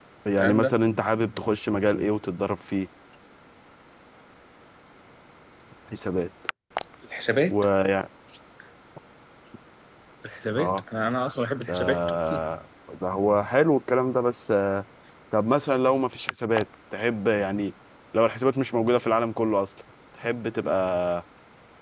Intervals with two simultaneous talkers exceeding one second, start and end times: none

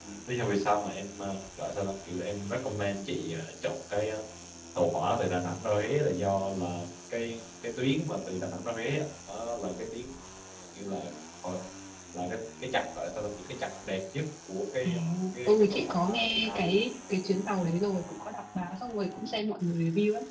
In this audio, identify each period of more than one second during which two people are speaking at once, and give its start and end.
15.5-16.8

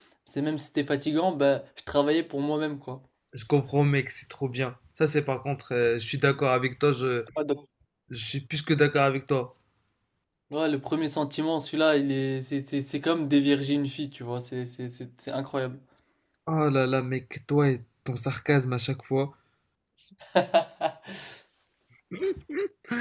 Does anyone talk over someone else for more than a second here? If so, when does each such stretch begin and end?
none

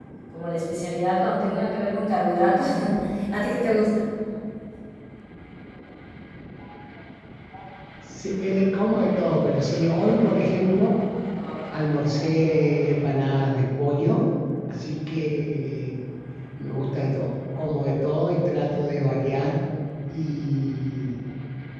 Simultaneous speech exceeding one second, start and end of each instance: none

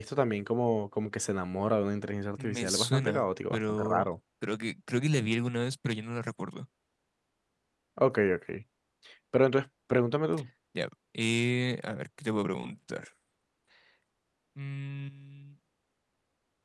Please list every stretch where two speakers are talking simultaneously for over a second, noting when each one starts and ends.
2.4-4.1

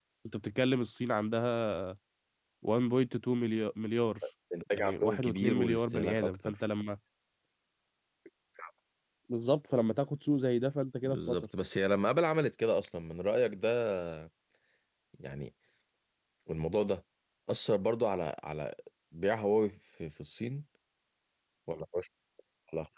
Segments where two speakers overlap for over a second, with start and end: 4.7-6.5

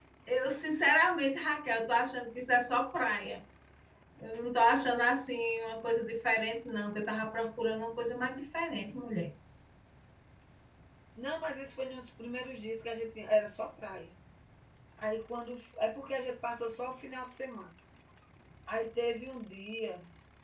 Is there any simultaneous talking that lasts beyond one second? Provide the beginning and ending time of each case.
none

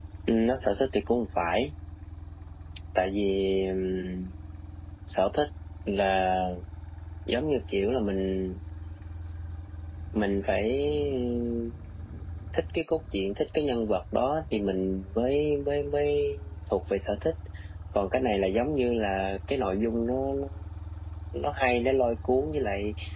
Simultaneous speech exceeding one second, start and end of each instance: none

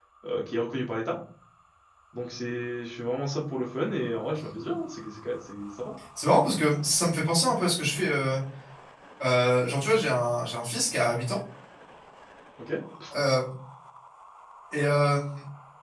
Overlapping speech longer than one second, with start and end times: none

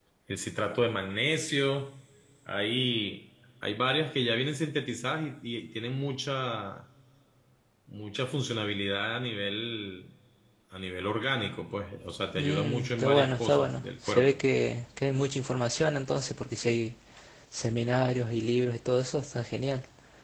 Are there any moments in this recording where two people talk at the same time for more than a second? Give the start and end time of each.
12.4-14.4

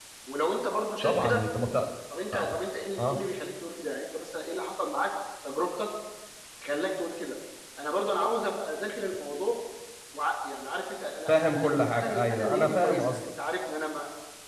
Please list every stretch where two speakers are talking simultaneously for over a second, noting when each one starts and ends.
11.3-13.3

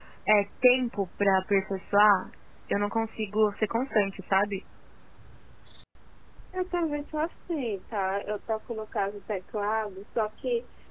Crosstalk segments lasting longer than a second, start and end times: none

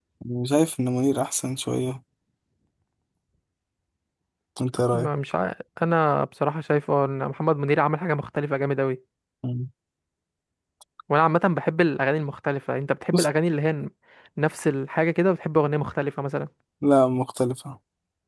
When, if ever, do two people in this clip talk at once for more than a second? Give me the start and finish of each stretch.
none

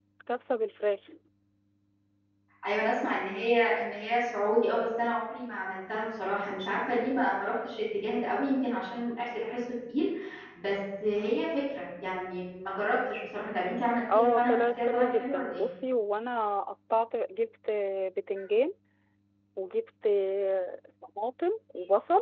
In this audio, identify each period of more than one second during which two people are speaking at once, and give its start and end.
14.1-15.6

